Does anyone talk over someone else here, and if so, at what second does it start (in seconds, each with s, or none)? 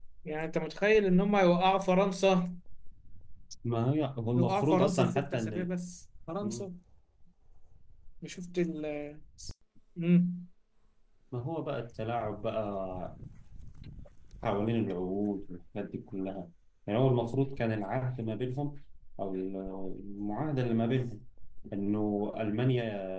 4.3 s